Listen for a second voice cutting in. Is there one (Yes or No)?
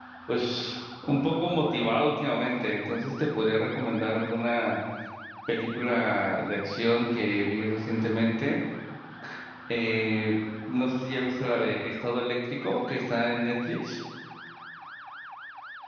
No